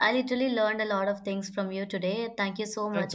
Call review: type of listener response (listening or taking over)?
taking over